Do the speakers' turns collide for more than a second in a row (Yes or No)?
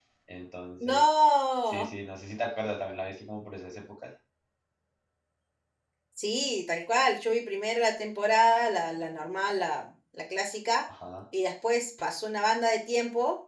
No